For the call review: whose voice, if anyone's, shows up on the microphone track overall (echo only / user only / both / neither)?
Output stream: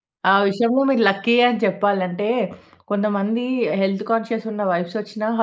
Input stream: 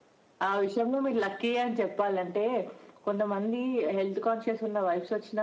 echo only